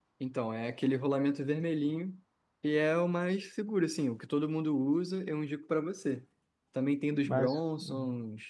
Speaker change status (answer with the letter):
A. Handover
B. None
B